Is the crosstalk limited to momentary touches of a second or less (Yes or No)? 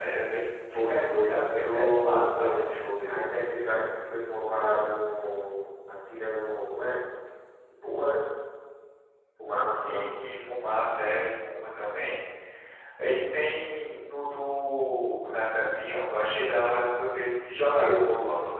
No